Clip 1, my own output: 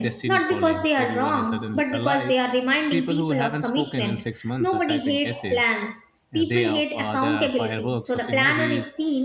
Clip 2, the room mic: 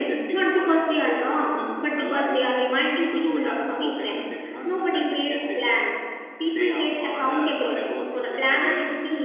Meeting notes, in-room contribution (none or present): none